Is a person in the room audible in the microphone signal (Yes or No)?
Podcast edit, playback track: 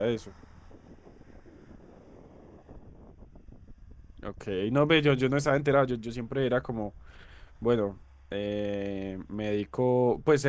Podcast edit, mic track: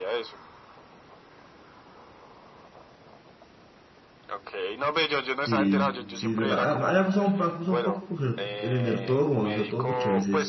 Yes